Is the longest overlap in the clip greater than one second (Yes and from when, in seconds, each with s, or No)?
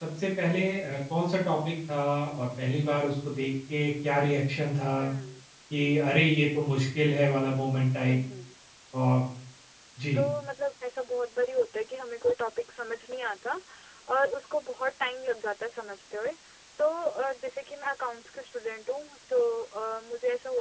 No